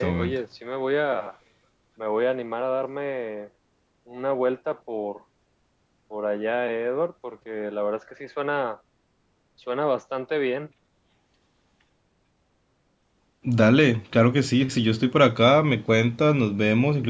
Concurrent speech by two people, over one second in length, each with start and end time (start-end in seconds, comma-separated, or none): none